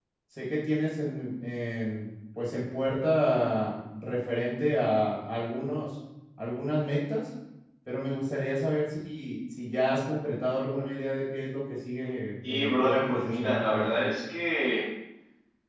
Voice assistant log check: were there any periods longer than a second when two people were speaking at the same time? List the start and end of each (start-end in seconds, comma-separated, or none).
12.5-14.1